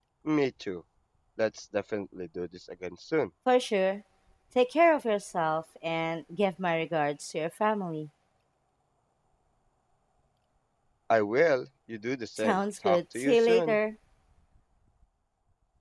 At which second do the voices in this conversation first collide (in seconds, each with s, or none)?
12.4 s